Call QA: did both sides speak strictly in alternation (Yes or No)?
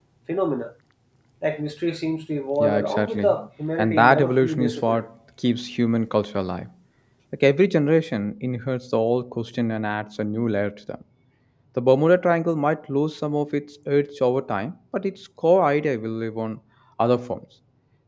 No